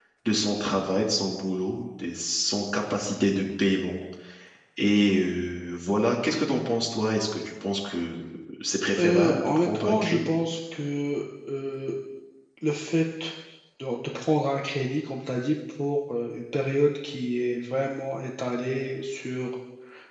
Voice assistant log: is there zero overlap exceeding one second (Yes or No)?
No